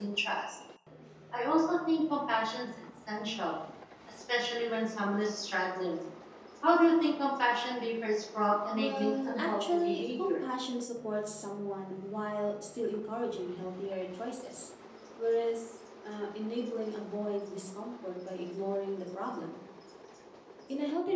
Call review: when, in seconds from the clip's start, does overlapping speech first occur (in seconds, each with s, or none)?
8.7 s